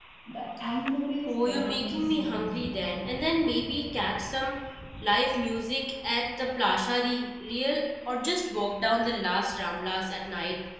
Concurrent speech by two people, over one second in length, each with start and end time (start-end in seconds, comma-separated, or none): 1.3-2.5